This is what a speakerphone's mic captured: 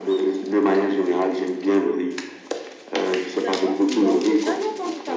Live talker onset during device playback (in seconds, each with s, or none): 3.4 s